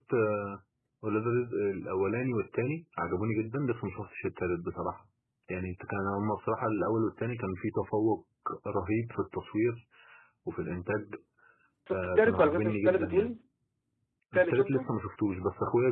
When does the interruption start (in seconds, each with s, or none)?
11.9 s